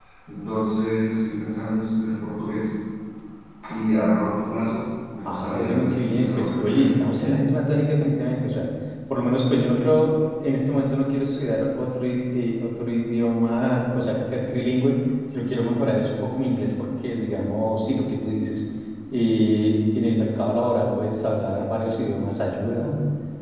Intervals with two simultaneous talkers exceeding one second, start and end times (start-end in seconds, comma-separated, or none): 5.2-6.9